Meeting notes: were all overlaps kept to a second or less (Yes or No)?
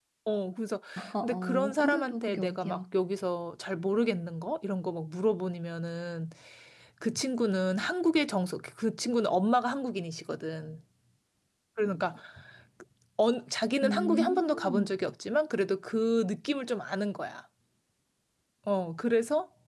No